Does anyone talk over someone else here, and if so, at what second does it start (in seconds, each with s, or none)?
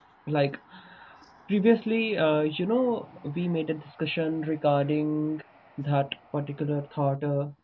none